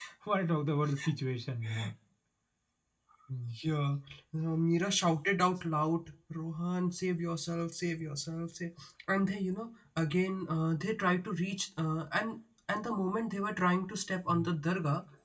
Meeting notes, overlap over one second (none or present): none